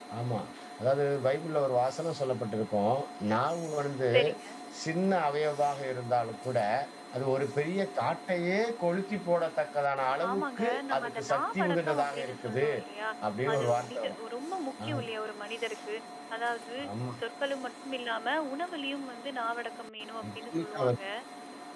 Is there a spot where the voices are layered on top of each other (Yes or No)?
Yes